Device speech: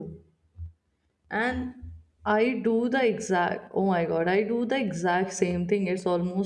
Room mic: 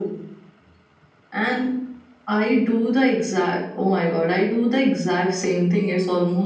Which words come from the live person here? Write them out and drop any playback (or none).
none